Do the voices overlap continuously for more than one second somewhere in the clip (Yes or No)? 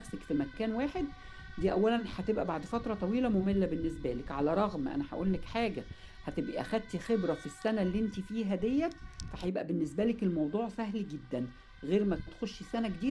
No